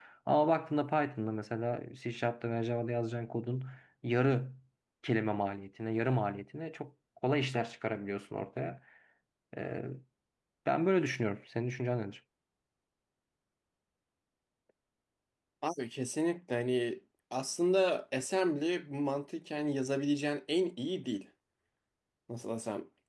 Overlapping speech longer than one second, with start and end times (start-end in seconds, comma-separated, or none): none